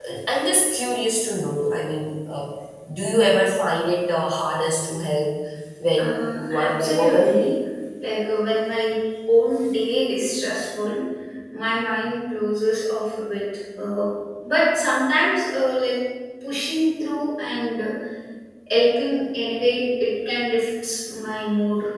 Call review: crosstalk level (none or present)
present